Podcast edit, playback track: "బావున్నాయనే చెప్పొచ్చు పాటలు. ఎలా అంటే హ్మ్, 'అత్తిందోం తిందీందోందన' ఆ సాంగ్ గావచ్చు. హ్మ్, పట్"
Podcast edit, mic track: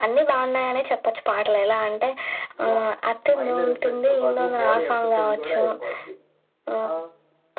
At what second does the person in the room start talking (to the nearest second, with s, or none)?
3 s